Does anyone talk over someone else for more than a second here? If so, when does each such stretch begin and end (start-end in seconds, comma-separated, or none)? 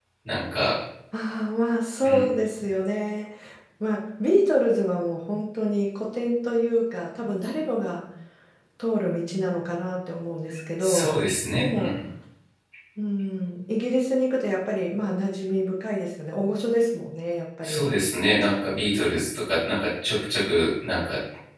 none